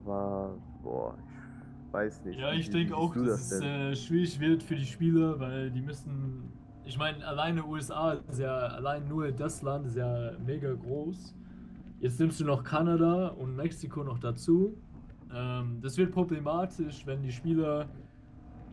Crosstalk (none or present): present